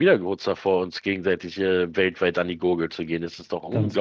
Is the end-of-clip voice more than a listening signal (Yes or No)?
Yes